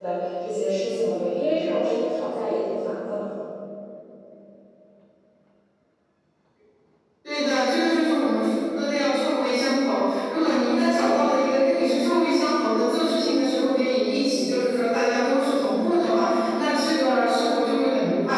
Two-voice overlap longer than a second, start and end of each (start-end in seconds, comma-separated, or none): none